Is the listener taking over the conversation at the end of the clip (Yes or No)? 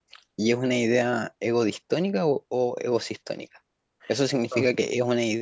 No